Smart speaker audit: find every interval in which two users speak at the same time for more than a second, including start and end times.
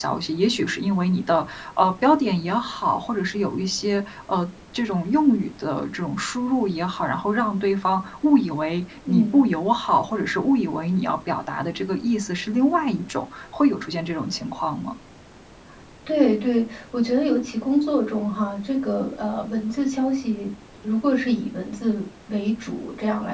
none

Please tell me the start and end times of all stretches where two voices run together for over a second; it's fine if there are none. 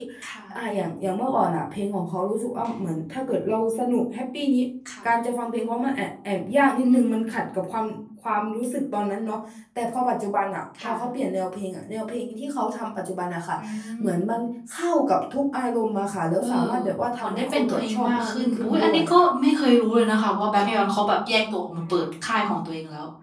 17.2-19.3

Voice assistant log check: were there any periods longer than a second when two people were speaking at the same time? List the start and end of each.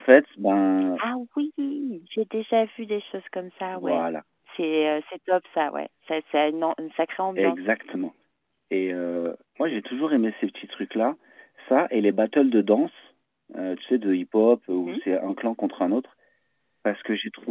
none

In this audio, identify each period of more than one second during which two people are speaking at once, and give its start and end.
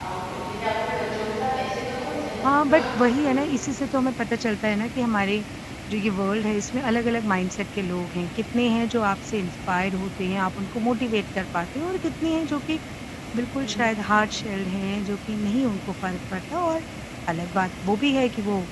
none

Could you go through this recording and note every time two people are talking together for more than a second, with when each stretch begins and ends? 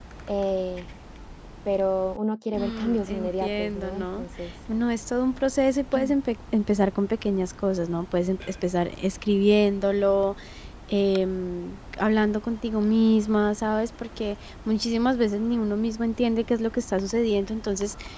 2.5-4.2

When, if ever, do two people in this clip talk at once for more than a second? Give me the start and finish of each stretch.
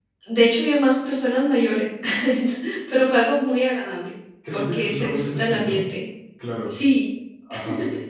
4.5-5.8

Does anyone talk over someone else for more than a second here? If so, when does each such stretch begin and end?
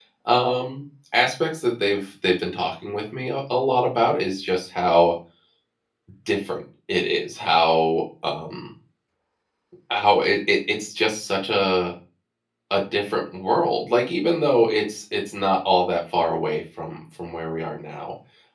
none

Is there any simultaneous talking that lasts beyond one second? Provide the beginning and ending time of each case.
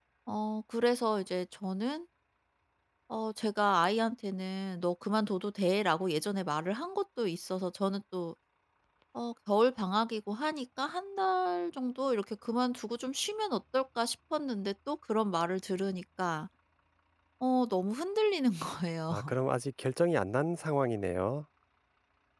none

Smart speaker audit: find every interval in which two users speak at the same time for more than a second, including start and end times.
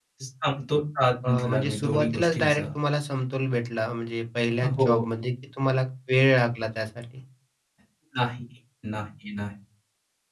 1.2-2.6

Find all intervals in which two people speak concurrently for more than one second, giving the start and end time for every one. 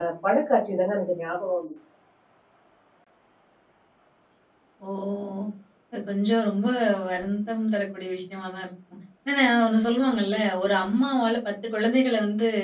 none

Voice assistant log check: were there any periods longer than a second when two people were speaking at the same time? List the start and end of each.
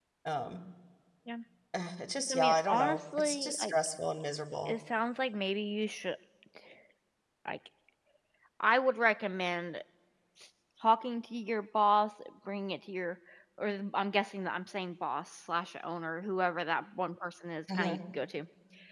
2.3-3.7

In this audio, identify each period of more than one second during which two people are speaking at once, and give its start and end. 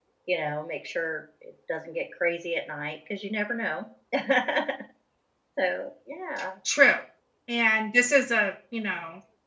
none

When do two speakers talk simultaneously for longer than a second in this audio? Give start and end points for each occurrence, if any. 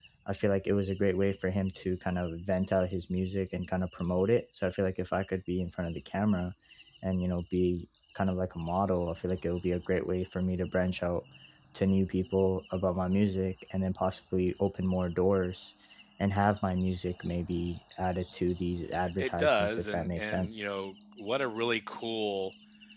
19.2-20.6

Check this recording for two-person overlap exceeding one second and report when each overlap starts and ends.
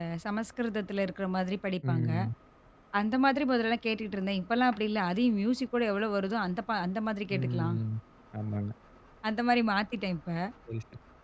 none

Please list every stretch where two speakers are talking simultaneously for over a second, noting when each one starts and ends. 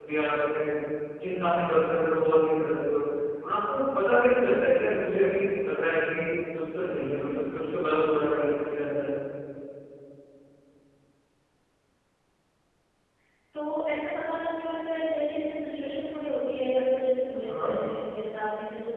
none

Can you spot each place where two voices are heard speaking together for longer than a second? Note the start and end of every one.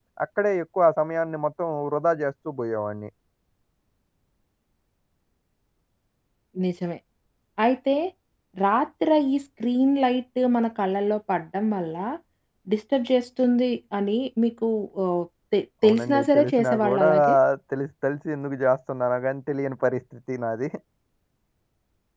15.8-17.1

